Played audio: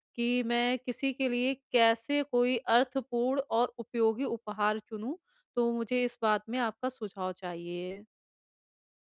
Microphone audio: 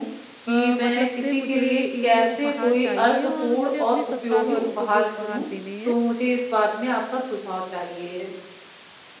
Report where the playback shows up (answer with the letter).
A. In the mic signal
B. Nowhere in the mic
A